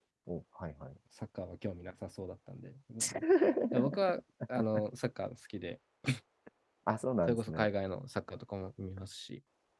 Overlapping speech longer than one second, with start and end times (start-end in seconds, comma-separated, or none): none